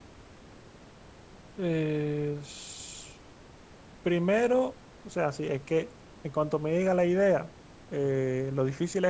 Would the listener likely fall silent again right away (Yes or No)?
Yes